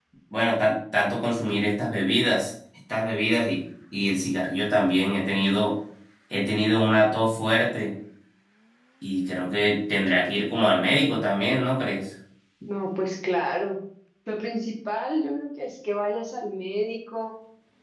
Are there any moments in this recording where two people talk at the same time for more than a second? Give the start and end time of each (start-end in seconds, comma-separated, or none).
none